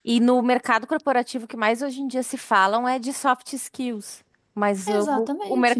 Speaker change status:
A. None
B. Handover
A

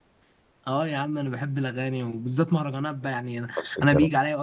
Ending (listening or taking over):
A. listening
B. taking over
A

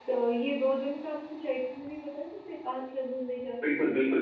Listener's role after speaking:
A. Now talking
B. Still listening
A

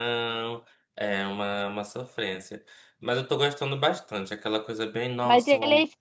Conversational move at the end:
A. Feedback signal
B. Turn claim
B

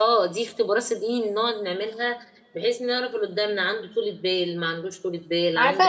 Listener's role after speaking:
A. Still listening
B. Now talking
B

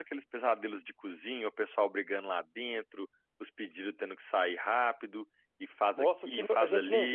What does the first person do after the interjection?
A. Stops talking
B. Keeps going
A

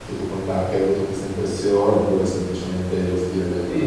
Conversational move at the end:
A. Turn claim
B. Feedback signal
A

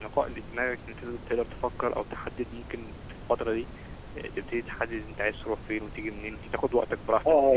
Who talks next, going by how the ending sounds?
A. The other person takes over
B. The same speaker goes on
A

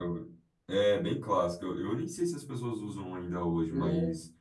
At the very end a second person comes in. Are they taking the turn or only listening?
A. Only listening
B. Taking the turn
A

